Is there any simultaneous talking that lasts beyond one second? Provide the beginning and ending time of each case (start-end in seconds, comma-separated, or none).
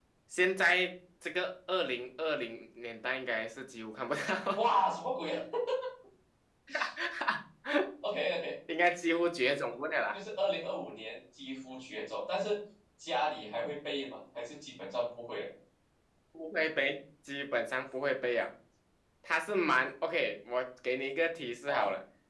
none